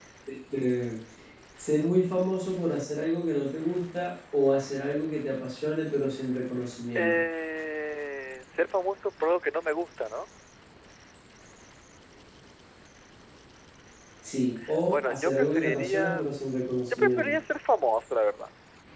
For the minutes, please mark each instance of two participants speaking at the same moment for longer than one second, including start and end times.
14.9-16.2

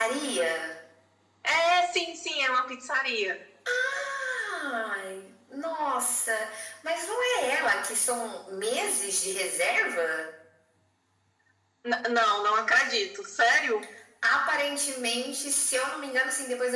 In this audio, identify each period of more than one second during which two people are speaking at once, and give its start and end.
none

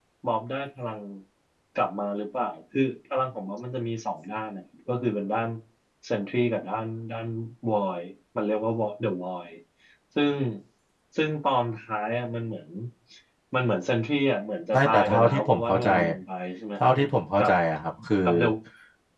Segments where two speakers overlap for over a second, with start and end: 14.7-16.1

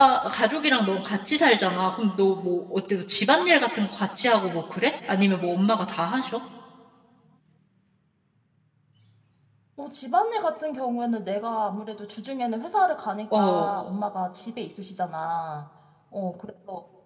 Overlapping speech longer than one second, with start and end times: none

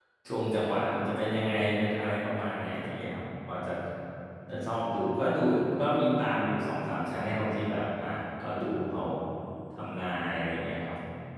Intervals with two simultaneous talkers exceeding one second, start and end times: none

